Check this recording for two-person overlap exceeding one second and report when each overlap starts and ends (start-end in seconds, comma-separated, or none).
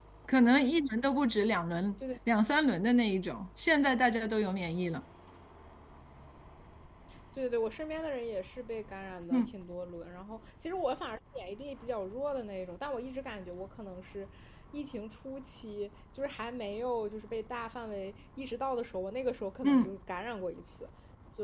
none